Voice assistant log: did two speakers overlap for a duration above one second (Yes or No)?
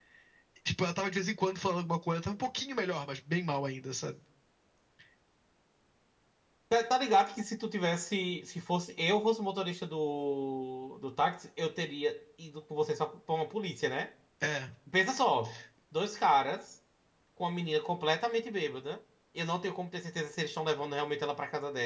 No